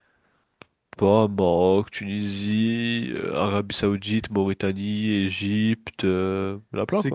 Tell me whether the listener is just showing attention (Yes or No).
No